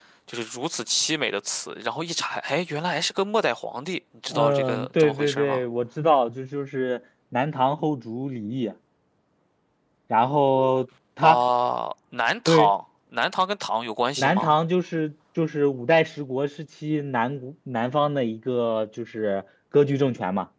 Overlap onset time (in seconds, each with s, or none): 4.3 s